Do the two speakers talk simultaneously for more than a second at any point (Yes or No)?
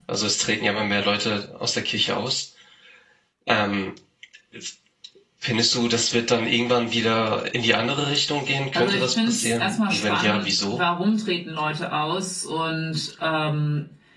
Yes